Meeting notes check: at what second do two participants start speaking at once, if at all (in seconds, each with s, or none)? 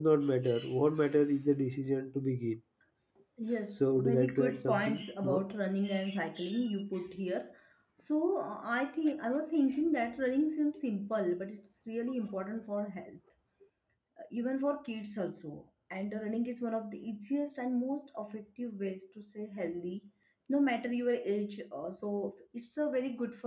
3.8 s